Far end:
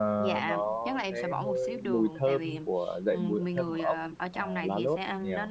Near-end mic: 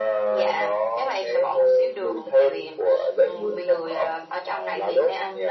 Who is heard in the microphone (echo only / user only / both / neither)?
echo only